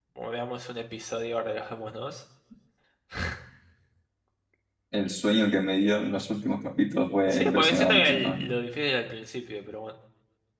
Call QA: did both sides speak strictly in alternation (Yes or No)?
No